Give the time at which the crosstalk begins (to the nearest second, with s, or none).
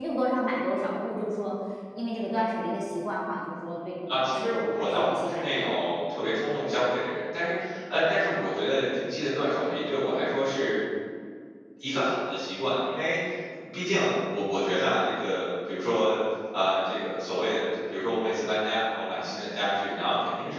4 s